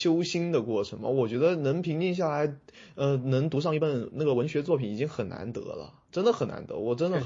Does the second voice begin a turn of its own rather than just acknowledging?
Yes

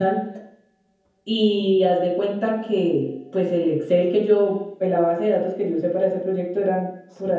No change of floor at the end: Yes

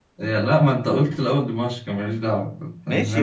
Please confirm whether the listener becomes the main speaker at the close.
Yes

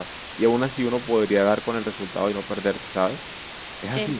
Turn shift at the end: Yes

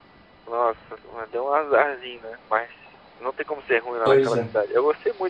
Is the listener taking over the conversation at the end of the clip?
No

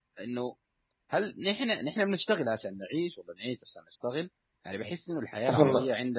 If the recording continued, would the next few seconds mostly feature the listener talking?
No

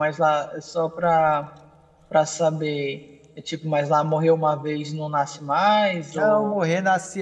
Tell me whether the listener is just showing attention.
No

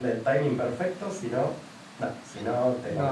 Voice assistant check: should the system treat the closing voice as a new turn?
Yes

